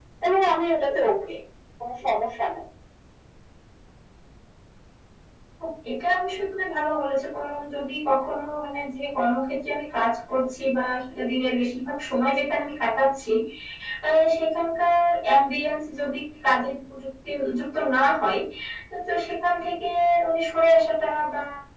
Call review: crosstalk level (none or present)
none